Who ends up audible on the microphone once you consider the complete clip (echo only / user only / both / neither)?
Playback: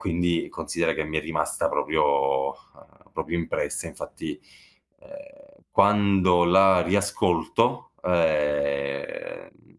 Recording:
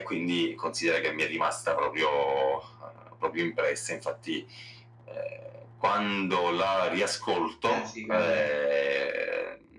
both